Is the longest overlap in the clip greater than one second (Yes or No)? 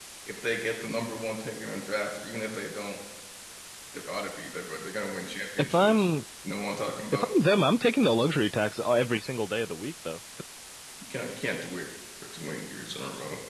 No